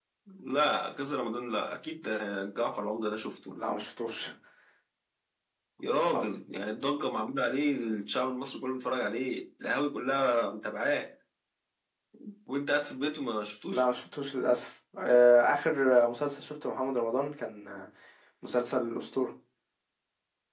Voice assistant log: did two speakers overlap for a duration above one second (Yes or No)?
No